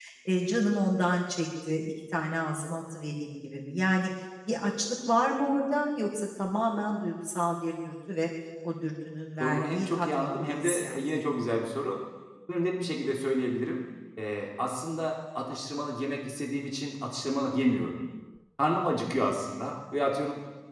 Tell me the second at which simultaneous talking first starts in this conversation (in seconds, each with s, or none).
9.4 s